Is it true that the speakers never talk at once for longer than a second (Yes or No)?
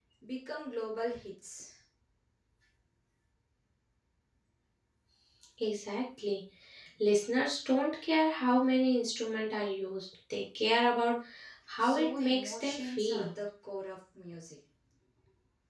No